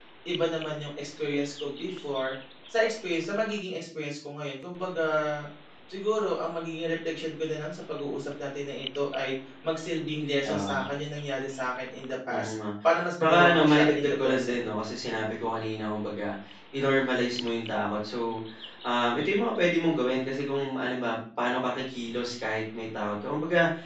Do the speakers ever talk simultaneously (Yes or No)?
Yes